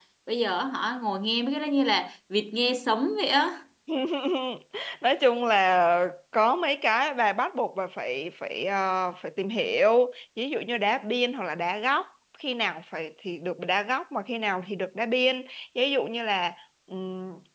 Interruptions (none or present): none